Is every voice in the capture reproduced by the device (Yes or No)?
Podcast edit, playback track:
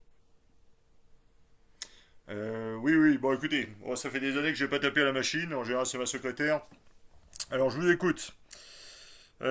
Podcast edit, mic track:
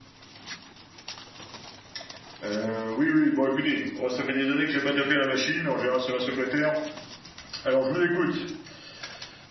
Yes